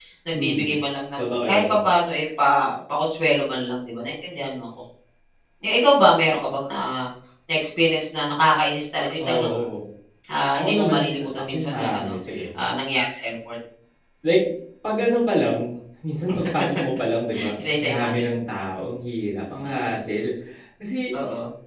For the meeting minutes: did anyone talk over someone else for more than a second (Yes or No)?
Yes